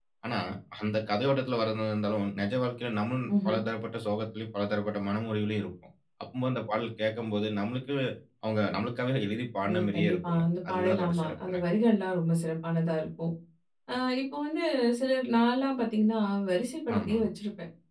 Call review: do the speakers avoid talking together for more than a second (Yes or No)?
No